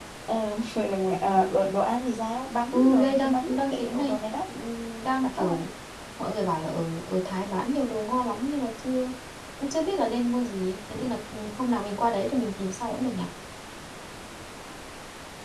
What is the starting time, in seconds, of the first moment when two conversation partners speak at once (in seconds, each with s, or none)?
2.7 s